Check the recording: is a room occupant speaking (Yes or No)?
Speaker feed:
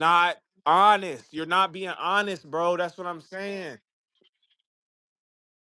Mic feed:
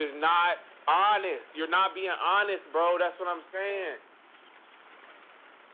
No